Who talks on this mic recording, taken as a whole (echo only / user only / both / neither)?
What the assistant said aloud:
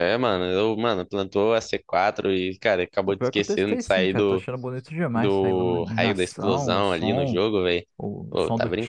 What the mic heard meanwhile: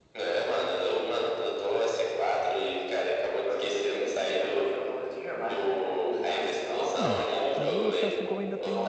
both